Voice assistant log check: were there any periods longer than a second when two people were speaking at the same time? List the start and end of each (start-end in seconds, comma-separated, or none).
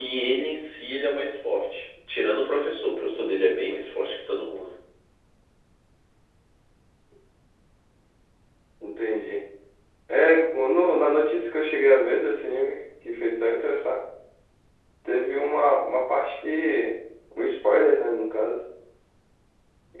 none